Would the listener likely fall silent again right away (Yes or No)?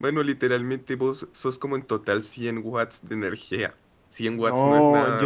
No